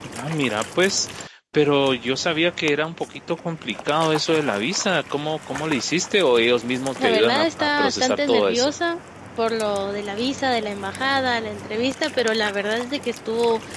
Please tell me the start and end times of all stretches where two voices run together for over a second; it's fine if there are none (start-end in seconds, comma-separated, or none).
7.0-8.7